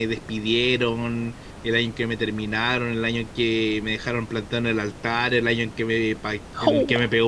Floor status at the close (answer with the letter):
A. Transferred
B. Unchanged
B